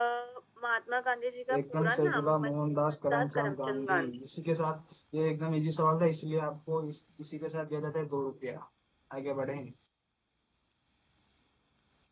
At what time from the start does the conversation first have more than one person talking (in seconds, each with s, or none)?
1.5 s